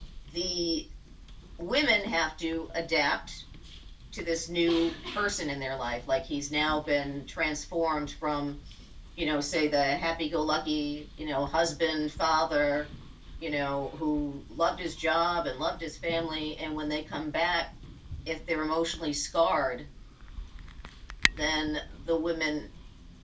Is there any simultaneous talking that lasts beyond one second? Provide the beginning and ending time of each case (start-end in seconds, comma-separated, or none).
none